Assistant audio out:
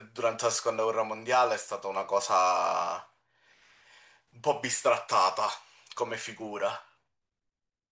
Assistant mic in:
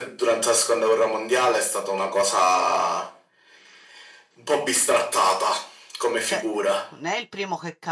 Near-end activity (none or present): present